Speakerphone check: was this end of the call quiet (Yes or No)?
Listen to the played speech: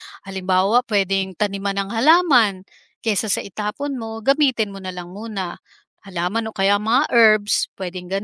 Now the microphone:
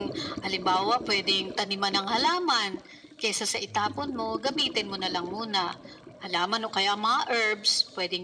Yes